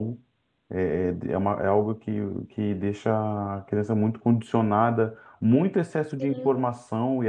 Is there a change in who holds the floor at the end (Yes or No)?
No